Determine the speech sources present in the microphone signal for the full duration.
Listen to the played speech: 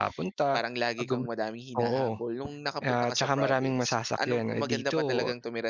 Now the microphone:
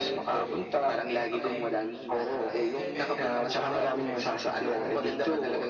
both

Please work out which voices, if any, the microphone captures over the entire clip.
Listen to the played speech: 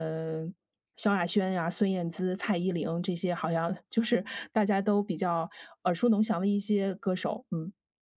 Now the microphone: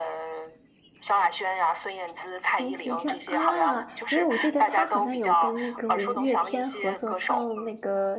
both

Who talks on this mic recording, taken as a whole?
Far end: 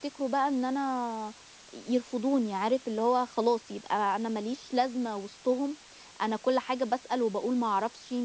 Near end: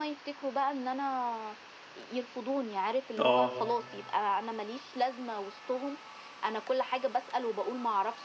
both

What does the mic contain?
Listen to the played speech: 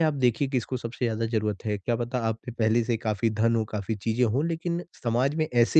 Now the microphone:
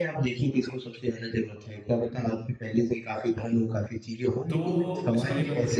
both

